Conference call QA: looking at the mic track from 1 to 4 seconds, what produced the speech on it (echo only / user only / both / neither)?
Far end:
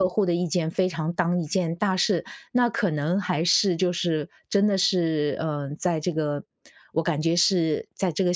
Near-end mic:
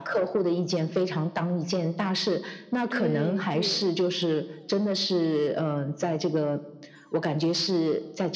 both